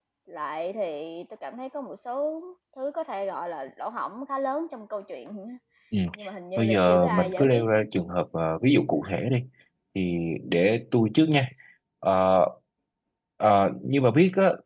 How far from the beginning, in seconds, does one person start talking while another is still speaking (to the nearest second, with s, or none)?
7 s